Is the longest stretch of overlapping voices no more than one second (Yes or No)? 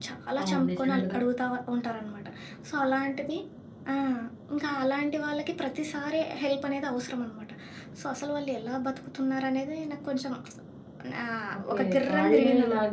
No